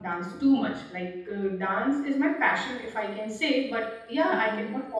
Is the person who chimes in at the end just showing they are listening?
Yes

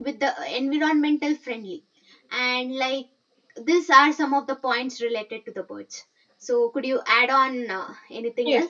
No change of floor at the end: No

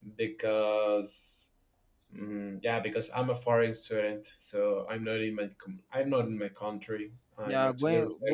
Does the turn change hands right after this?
Yes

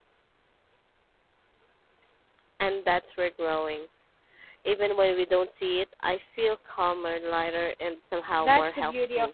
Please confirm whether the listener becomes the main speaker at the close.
Yes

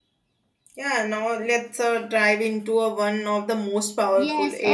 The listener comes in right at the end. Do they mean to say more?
Yes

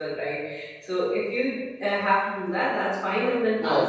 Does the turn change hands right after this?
Yes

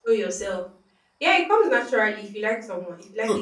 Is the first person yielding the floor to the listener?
Yes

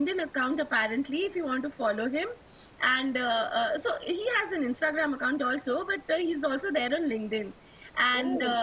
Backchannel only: Yes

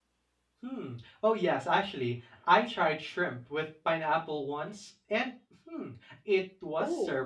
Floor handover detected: No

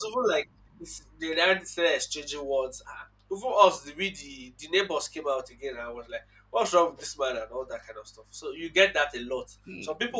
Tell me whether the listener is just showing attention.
Yes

